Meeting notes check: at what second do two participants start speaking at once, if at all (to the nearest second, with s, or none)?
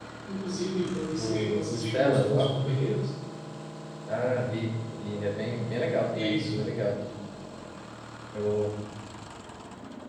1 s